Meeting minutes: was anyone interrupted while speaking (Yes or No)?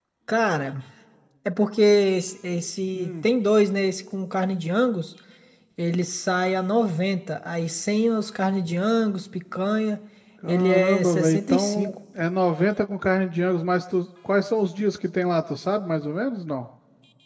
Yes